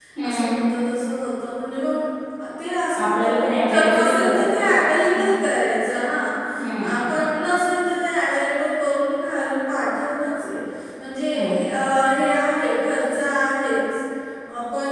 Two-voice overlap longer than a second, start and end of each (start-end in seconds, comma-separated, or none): 3.0-4.5